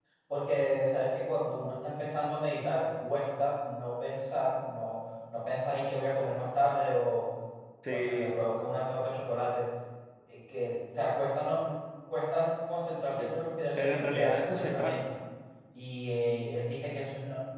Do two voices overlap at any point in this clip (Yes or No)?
Yes